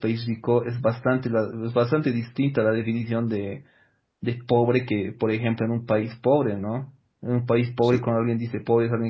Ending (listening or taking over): listening